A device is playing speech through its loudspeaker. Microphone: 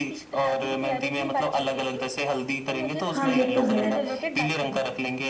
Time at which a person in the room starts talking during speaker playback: 3.1 s

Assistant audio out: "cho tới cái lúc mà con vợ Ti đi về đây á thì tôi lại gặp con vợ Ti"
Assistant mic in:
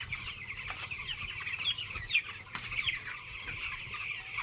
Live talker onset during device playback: none

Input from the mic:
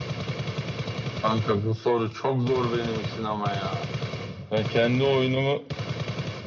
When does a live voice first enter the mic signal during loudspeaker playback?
none

